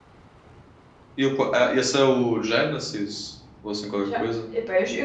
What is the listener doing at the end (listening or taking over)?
taking over